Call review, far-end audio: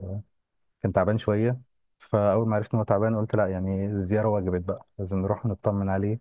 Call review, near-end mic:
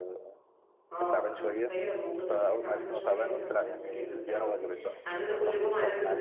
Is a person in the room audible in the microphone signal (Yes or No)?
Yes